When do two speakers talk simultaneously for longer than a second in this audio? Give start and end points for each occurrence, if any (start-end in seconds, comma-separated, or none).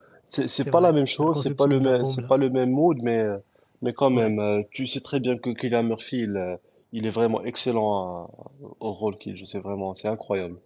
0.5-2.3